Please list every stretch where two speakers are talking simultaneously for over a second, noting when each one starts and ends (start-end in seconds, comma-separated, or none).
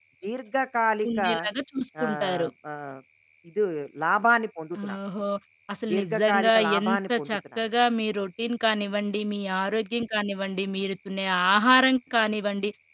5.9-7.6